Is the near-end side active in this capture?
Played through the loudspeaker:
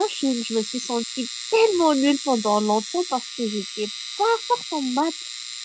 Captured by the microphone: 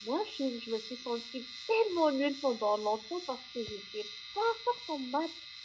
No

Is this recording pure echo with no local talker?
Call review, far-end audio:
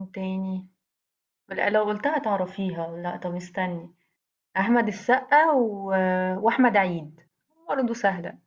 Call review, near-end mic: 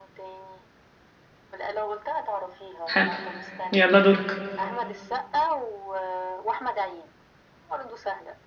No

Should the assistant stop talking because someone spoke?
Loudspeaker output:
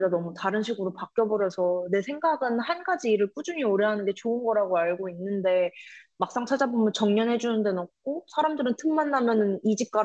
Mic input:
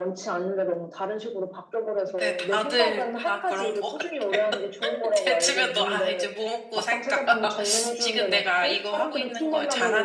Yes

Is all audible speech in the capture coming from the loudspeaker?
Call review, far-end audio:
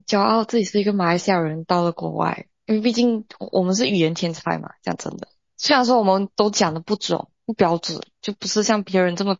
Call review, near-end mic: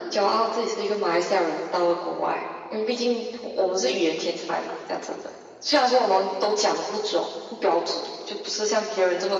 Yes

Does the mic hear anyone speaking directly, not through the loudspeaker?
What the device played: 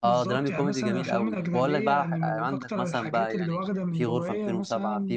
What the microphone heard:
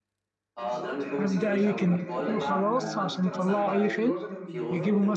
Yes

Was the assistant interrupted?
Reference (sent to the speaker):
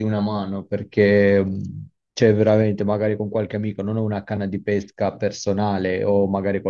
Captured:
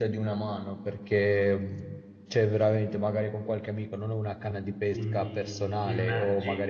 Yes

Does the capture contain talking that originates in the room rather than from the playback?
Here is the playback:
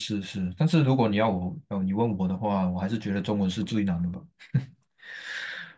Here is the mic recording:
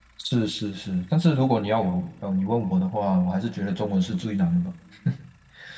No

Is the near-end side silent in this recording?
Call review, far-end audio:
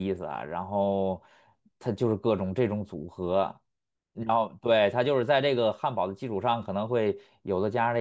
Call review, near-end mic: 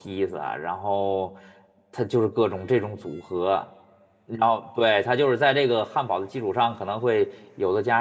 Yes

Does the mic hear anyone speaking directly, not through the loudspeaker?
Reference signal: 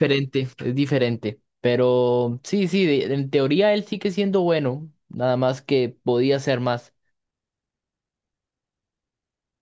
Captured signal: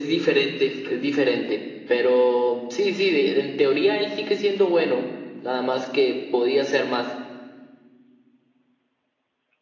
No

